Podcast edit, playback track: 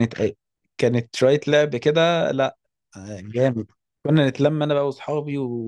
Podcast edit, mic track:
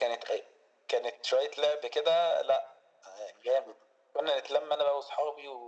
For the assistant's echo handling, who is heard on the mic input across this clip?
echo only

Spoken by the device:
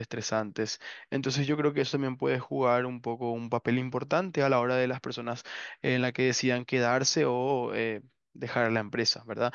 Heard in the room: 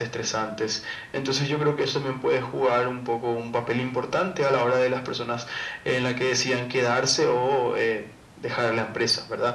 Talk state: echo only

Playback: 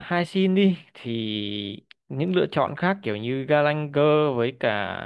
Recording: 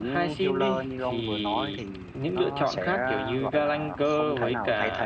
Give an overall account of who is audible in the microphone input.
both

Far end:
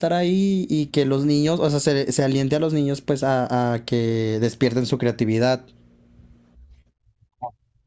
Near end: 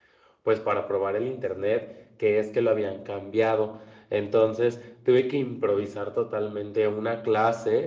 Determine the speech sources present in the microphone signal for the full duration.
user only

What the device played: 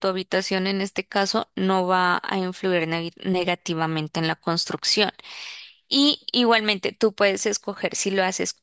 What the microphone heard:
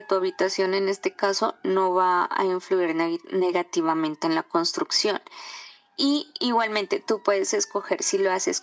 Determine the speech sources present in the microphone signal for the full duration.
echo only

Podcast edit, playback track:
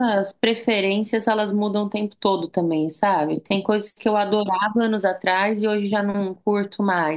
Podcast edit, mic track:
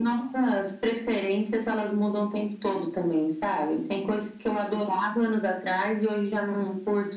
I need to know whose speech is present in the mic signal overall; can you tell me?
echo only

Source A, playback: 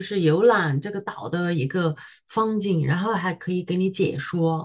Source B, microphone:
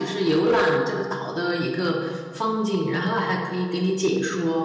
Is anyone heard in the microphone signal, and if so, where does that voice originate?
echo only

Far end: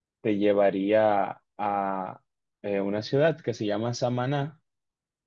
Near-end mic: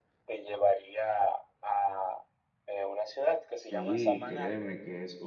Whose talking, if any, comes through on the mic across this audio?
both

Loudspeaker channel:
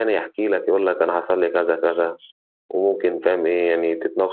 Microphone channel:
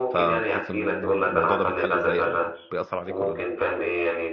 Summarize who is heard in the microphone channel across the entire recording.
both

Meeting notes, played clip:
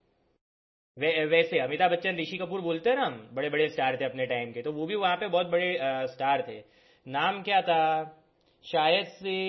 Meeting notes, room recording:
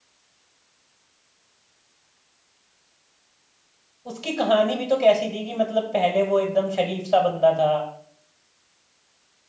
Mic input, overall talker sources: user only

